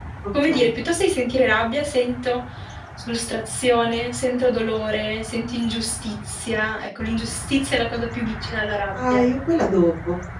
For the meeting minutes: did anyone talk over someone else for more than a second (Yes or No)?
No